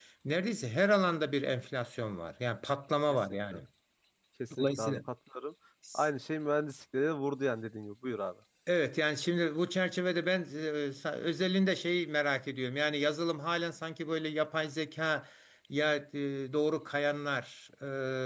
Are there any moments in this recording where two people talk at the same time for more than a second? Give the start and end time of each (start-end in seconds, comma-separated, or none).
none